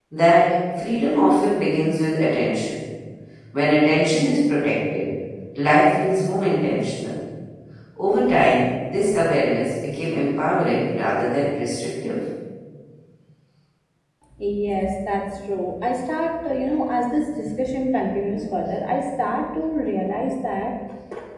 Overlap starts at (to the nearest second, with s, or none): none